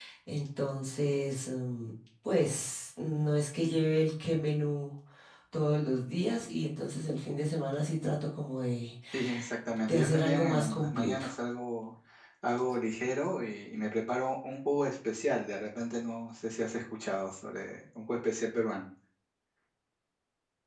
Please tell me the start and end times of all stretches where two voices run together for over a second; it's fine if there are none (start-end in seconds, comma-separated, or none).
9.9-11.3